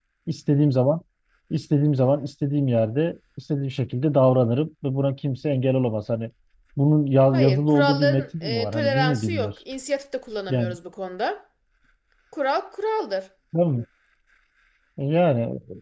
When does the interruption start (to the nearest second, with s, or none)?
7 s